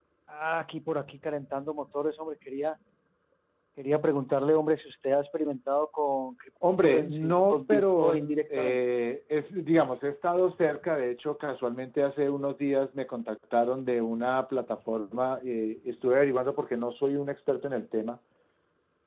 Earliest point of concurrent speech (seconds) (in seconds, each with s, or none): 6.6 s